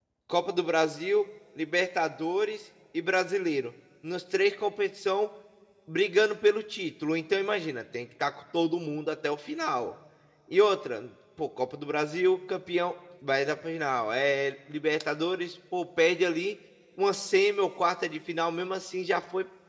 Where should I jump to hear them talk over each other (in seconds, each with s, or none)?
none